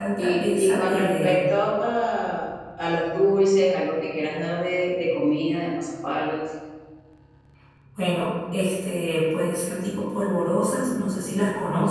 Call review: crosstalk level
present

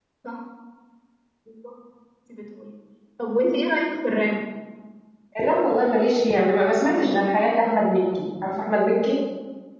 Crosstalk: none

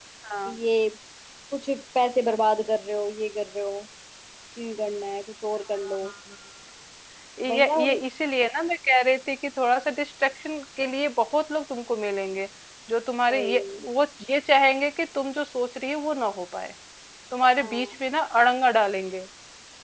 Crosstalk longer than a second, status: none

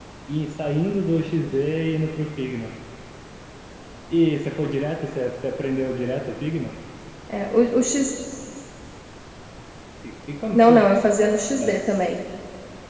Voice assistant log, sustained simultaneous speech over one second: none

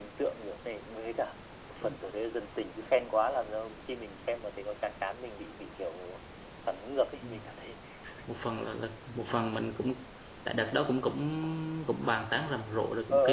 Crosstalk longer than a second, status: none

